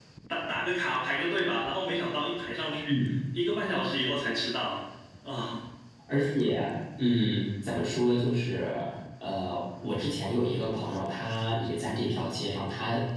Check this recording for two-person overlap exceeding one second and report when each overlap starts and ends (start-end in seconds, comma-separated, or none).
none